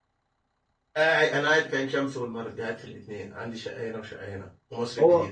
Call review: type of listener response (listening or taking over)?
taking over